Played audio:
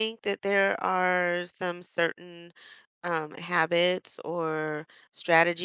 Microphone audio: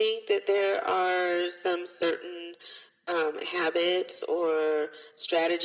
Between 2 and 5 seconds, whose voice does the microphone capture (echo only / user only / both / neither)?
echo only